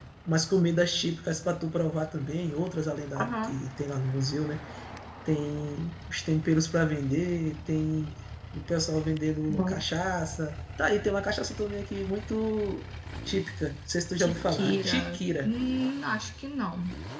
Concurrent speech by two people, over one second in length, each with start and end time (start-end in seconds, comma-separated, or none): 14.2-15.5